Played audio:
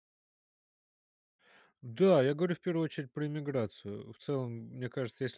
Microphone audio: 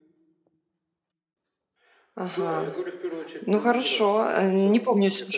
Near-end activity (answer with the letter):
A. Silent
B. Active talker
B